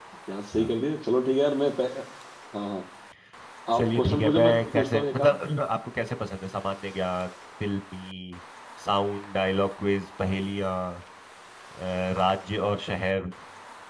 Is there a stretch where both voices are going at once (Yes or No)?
Yes